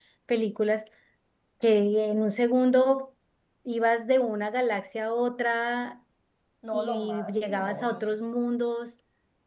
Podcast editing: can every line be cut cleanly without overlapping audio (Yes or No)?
No